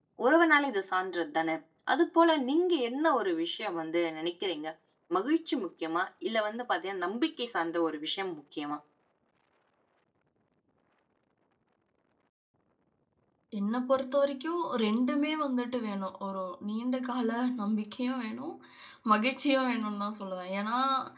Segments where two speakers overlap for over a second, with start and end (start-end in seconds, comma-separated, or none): none